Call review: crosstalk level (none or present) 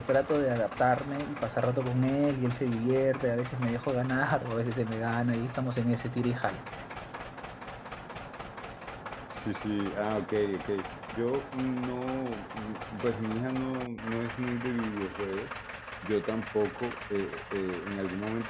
none